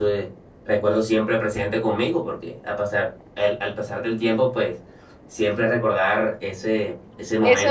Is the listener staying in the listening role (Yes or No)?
No